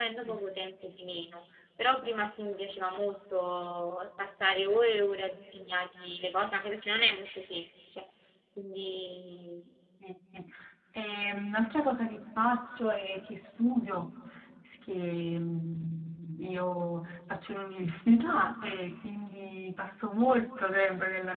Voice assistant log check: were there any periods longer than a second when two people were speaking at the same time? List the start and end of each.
none

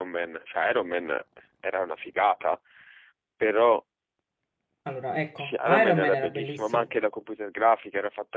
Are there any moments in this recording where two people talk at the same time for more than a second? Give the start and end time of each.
5.4-6.8

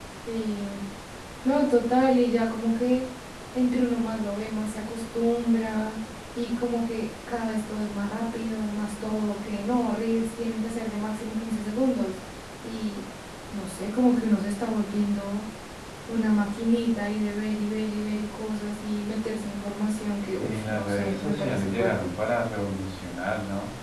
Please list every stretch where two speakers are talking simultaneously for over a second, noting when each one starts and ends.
20.4-22.1

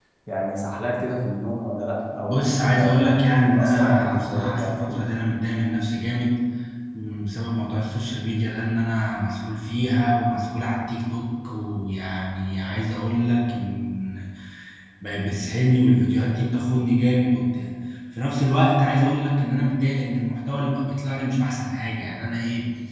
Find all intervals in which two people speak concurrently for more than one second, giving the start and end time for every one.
3.6-5.0

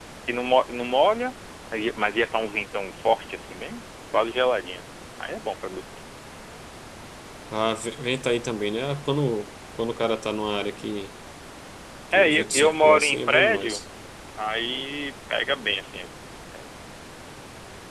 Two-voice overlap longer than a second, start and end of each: 12.1-13.8

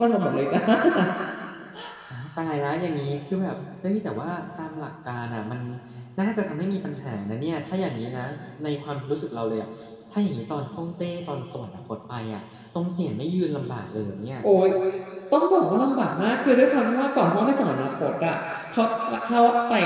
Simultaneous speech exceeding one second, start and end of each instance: none

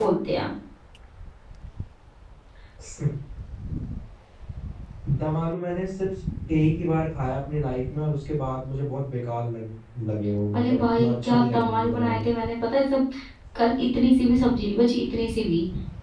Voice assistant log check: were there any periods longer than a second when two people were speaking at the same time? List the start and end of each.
10.5-12.3

